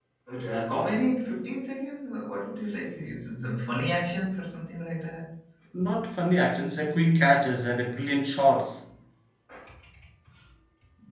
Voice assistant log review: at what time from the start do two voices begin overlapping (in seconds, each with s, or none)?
none